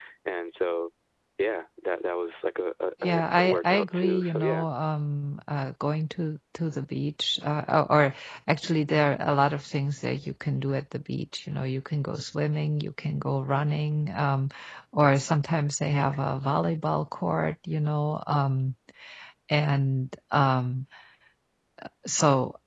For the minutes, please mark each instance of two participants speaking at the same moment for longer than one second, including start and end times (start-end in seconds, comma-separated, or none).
3.0-4.7